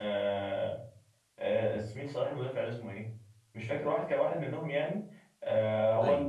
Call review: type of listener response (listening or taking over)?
listening